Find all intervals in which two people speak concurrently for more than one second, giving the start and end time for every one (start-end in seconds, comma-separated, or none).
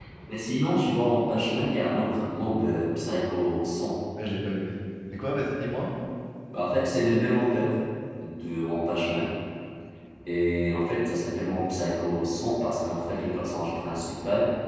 none